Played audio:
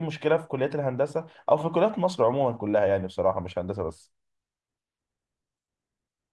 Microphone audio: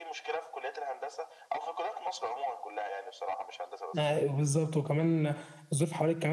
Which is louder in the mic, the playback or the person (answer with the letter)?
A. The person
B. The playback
A